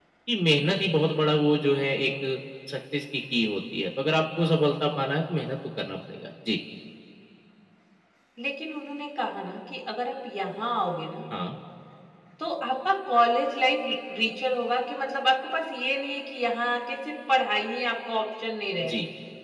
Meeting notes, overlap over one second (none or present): none